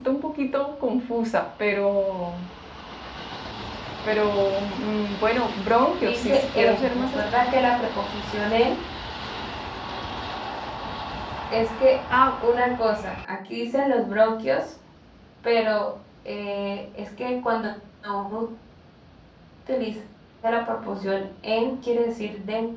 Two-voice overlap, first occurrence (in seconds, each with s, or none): 6.0 s